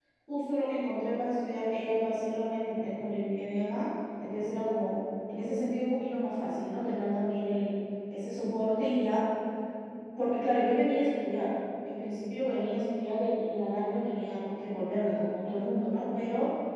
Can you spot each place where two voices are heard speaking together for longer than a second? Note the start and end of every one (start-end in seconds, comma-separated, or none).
none